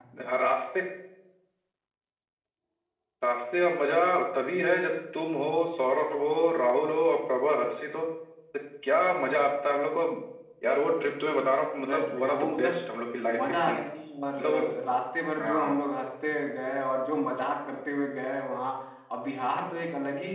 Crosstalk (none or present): present